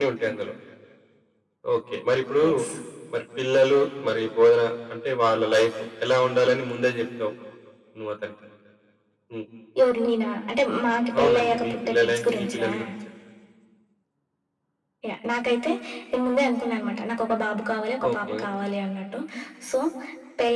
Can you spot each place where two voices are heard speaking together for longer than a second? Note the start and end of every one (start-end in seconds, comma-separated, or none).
11.2-12.7